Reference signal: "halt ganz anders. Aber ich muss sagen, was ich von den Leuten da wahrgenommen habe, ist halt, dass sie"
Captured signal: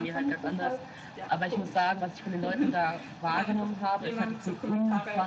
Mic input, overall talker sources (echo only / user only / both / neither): both